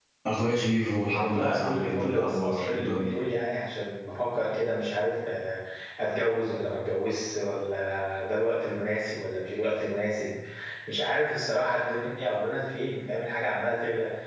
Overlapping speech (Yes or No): Yes